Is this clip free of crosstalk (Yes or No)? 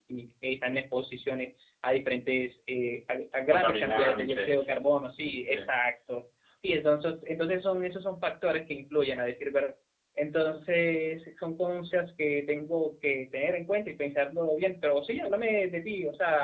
No